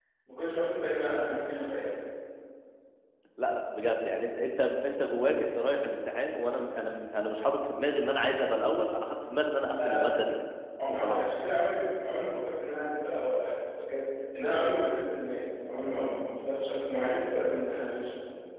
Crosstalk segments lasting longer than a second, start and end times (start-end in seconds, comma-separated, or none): none